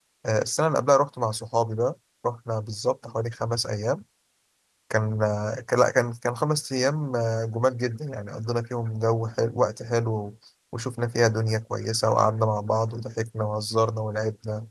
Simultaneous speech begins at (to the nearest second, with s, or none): none